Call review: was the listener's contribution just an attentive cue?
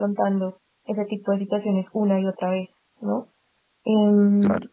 Yes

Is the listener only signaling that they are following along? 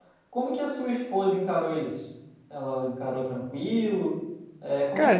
No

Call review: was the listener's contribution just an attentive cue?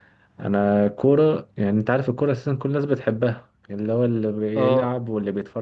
Yes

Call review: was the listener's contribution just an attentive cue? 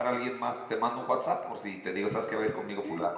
No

